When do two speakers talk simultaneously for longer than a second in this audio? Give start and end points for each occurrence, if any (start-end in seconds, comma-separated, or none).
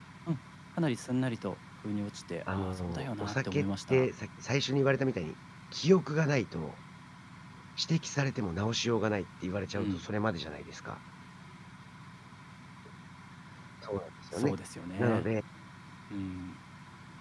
2.5-4.0